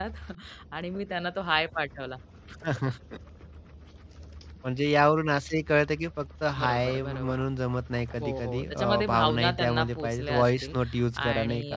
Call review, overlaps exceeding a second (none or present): present